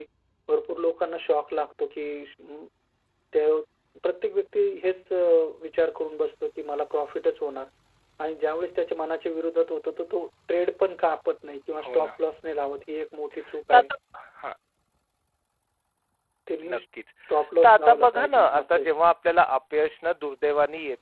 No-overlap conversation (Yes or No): No